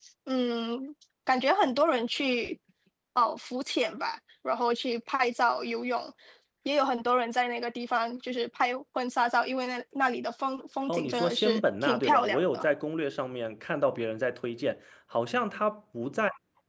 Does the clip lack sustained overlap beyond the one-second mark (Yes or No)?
No